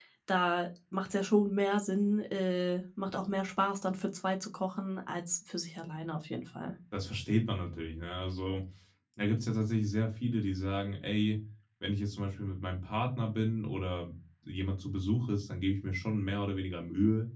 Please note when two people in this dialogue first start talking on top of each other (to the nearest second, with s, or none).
none